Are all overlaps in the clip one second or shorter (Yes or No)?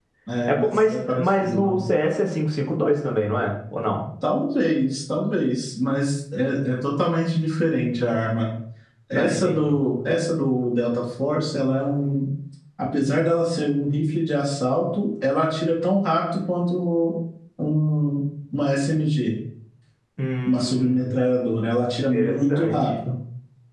No